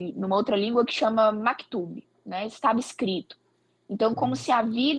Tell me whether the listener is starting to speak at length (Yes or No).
No